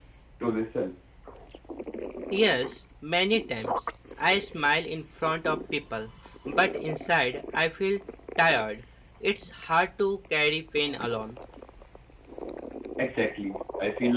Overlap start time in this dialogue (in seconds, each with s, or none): none